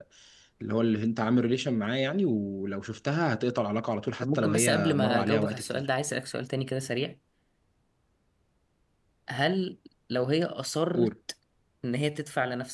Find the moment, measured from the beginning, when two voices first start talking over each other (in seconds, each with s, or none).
4.2 s